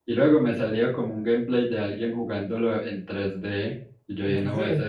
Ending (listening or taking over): listening